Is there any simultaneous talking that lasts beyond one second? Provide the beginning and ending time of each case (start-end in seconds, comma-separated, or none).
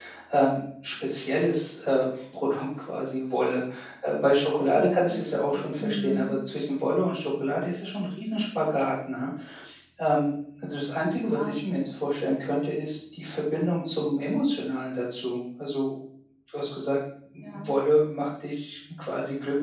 4.7-6.4